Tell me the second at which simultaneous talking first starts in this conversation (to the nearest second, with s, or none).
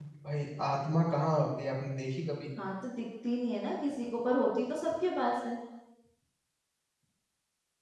none